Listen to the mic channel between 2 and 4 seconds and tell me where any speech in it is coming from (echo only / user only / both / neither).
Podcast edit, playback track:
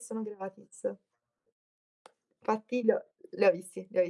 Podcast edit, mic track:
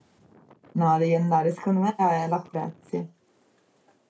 user only